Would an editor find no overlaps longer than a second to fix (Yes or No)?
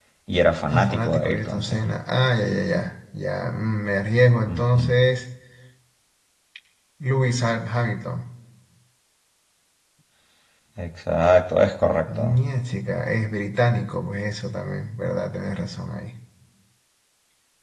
No